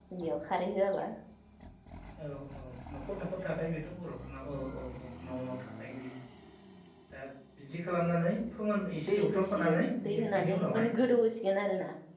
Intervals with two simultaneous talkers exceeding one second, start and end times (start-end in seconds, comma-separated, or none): 9.1-10.9